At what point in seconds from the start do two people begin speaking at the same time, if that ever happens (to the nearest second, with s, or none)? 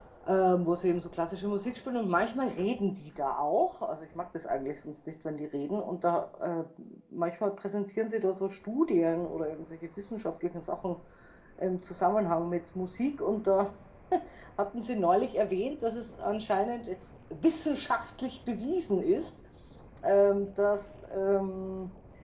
none